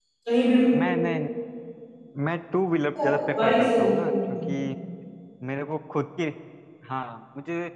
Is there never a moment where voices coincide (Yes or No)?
No